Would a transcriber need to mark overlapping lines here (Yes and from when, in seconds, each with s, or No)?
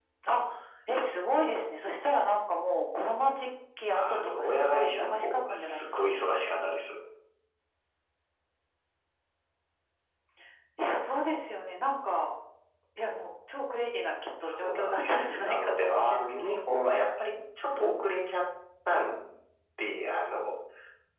Yes, from 3.9 s